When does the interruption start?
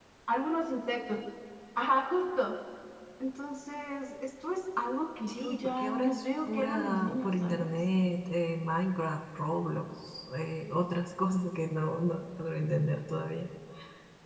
5.3 s

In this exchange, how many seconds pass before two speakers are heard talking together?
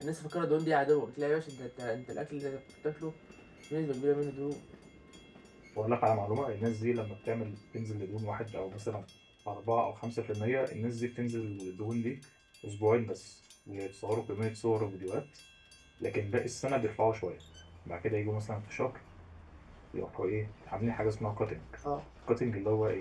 none

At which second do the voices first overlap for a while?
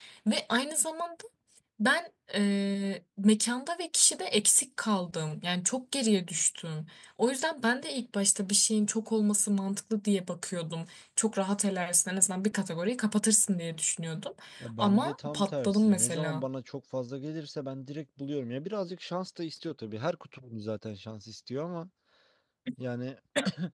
14.8 s

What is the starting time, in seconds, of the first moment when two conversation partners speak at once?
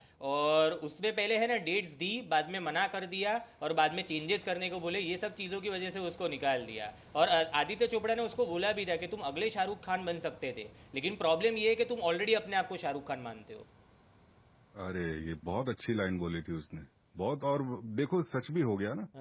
none

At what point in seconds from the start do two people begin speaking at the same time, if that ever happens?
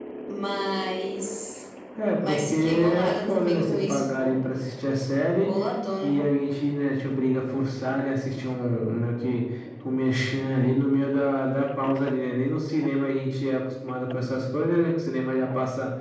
2.3 s

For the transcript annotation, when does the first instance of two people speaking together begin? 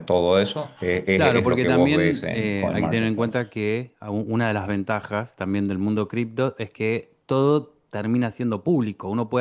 1.1 s

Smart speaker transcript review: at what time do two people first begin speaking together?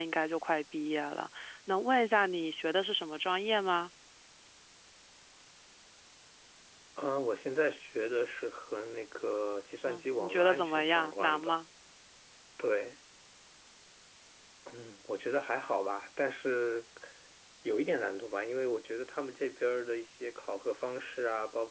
9.9 s

